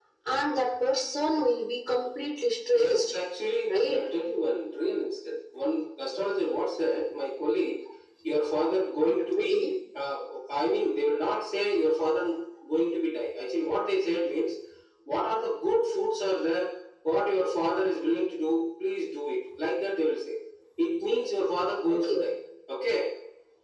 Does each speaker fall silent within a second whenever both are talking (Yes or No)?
Yes